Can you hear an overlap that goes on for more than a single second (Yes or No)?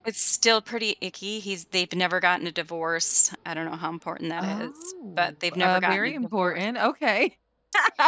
Yes